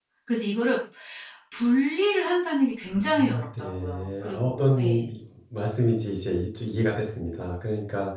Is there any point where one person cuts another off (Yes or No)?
Yes